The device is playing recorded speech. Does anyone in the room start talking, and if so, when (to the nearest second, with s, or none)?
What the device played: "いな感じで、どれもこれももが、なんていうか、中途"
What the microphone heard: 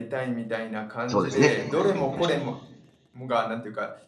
1 s